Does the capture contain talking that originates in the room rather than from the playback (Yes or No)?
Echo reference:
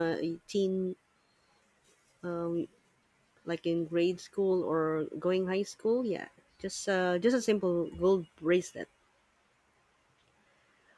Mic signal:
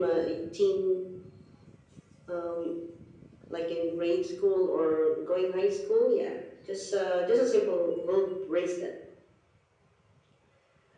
No